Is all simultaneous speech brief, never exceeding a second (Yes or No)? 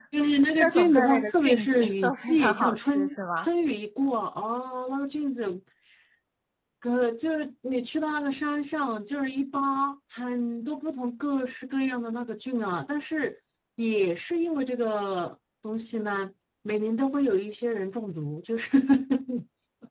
No